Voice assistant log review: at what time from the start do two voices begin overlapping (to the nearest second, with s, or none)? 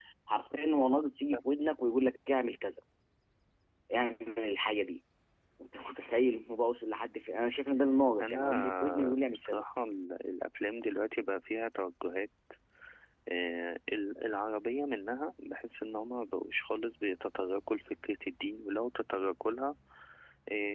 8 s